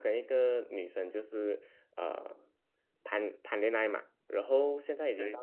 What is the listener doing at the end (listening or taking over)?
listening